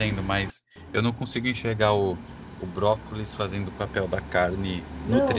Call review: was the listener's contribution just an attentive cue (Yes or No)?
No